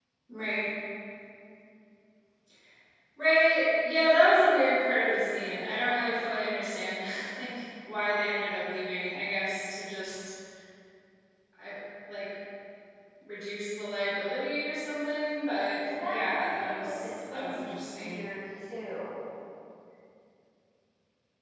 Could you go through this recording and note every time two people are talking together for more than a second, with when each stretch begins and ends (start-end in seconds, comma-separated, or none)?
16.0-18.2